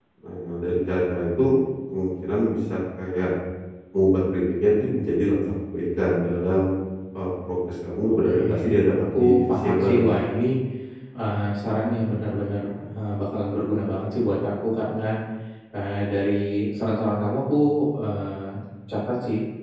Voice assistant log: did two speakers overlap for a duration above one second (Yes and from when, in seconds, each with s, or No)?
Yes, from 8.0 s